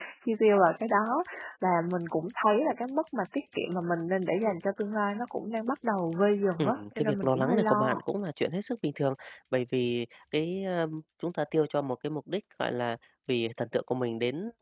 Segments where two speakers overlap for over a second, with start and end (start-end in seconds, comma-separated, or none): 6.6-8.0